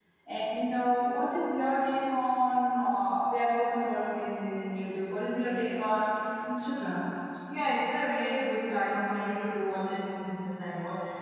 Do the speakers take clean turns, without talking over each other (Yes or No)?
Yes